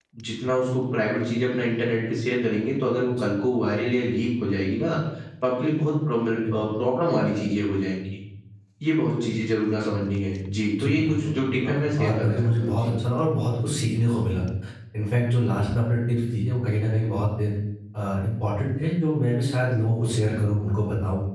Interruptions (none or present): present